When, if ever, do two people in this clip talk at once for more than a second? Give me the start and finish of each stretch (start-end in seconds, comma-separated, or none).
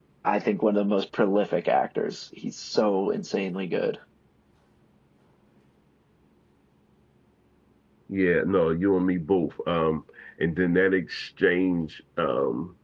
none